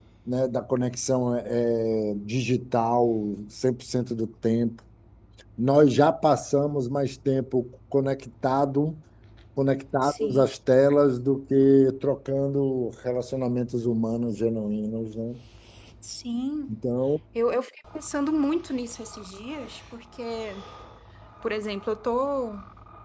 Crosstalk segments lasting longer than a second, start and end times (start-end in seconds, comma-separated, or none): none